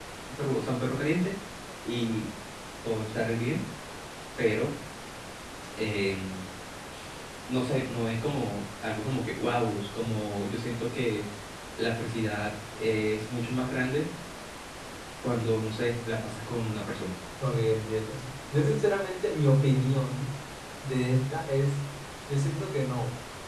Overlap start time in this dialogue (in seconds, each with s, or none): none